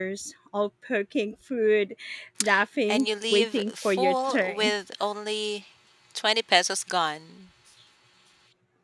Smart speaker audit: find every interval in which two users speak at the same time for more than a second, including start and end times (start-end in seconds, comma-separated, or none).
2.9-4.7